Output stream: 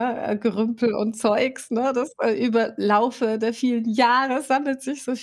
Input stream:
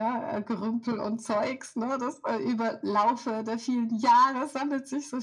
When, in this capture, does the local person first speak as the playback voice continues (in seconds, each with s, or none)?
none